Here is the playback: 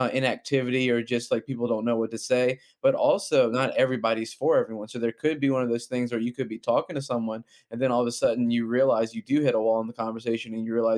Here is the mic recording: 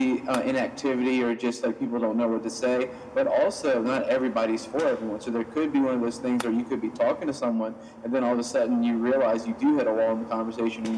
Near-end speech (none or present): none